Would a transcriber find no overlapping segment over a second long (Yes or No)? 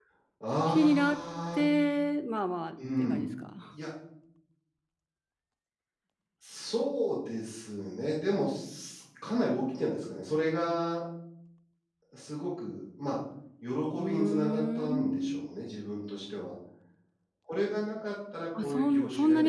No